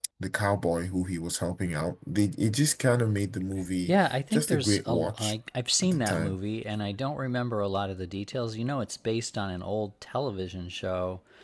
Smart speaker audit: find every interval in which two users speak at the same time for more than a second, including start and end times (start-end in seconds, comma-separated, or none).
3.9-5.3